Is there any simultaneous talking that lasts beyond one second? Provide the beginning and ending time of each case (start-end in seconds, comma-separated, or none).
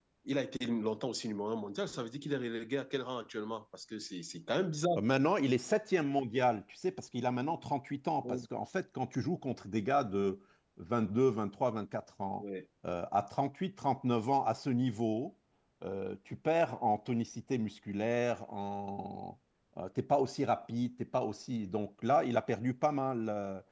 none